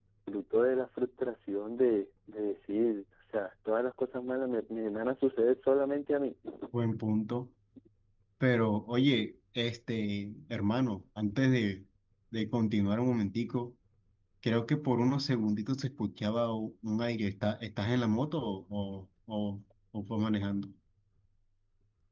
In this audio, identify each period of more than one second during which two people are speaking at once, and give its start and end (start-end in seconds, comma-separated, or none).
none